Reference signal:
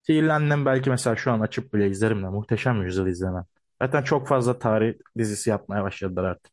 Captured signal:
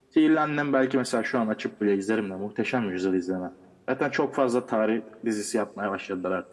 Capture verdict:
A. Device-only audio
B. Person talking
A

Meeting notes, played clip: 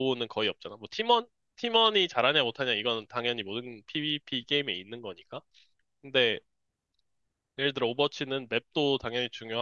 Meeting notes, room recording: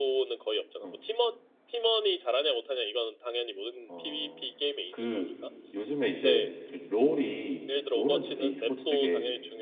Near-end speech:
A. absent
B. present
B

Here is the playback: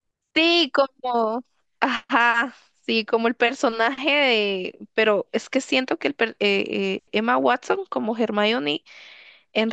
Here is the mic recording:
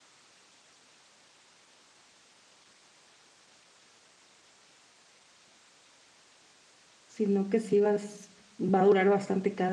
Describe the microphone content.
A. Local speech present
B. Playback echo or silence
A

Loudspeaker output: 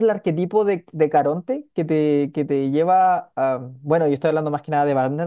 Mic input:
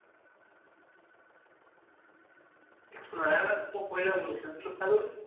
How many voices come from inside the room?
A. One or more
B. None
A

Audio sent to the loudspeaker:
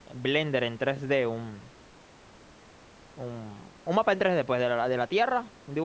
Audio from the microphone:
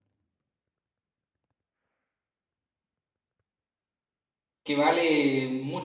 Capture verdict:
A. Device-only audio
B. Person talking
B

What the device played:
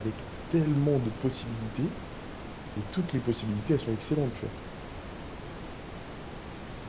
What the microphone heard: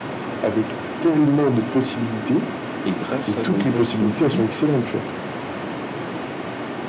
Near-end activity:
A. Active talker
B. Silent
A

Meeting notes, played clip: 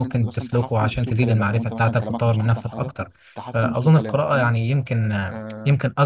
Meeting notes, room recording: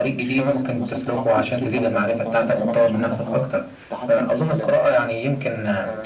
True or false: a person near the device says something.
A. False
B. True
A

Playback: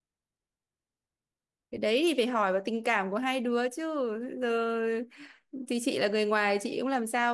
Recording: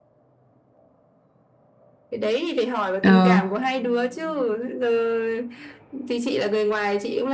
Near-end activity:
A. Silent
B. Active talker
B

